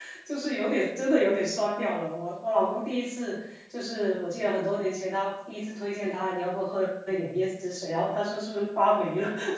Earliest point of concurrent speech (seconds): none

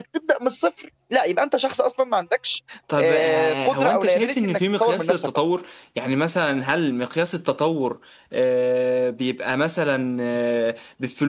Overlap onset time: 2.9 s

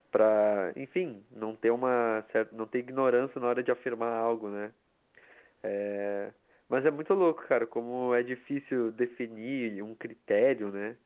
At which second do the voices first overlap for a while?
none

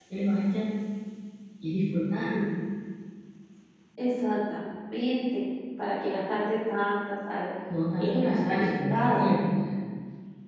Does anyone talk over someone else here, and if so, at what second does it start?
8.0 s

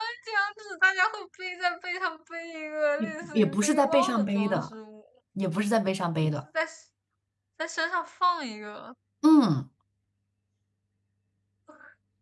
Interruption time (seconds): 3.0 s

